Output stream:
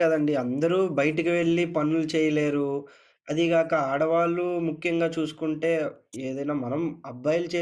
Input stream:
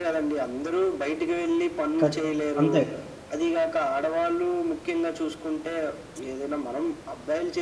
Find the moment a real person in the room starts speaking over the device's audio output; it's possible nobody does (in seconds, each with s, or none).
2.0 s